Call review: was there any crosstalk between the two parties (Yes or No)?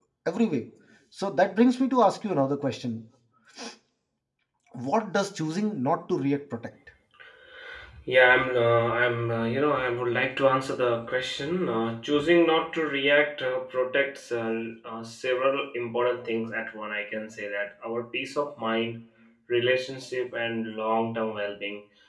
No